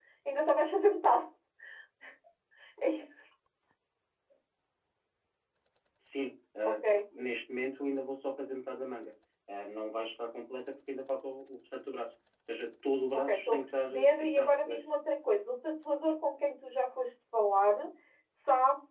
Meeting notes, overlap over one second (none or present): present